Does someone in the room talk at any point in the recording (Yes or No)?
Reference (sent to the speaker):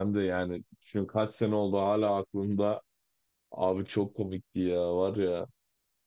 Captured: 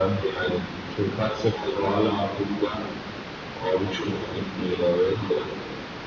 No